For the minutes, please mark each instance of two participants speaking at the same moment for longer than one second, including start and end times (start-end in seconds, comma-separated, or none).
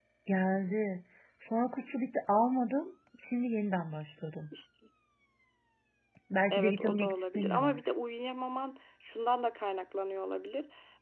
6.5-7.9